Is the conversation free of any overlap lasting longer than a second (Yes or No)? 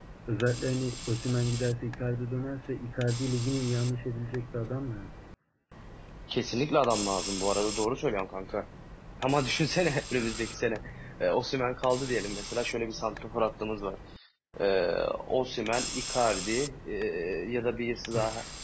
Yes